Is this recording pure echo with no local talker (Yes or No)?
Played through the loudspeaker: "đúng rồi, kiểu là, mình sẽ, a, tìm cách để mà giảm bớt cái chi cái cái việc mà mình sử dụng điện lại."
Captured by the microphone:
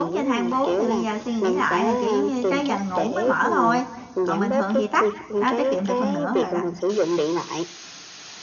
No